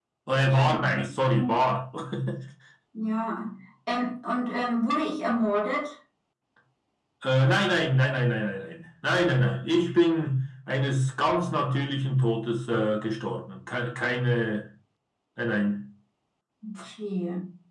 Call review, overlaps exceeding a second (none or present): none